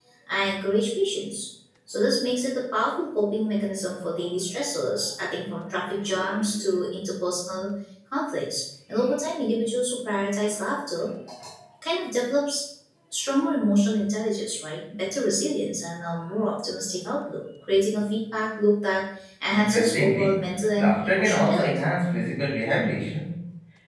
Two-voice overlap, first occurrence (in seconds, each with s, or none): 19.5 s